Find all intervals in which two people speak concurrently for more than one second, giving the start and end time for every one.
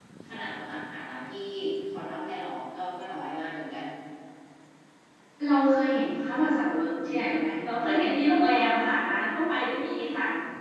none

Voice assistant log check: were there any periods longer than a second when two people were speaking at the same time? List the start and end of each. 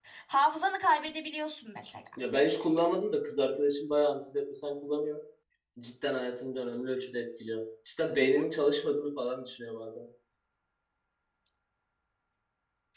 none

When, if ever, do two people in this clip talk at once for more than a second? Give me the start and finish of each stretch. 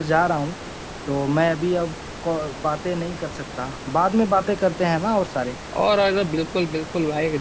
none

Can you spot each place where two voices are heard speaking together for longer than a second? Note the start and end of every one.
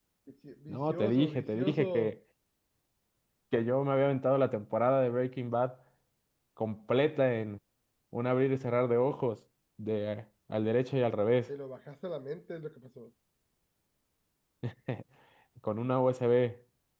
0.7-2.1

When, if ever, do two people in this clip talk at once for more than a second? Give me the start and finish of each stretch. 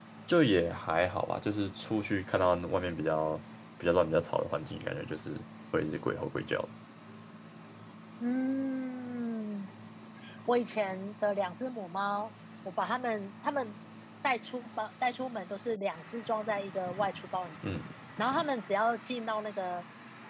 none

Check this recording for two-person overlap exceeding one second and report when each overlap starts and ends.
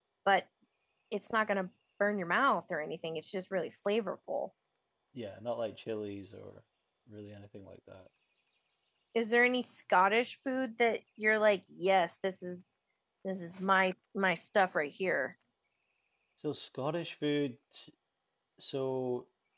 none

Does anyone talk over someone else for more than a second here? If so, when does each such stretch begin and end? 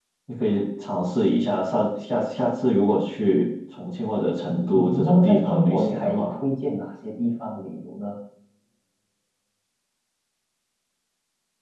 4.7-6.3

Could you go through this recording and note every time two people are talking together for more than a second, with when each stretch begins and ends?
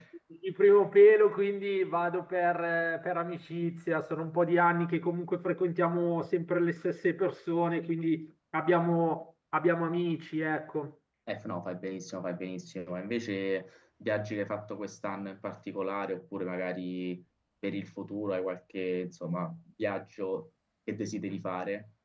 none

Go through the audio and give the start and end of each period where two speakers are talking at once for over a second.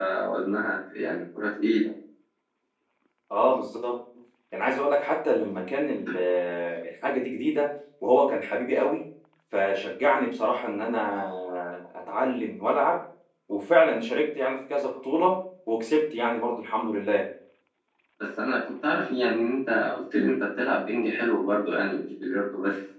none

